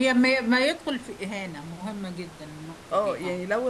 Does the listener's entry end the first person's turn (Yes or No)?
Yes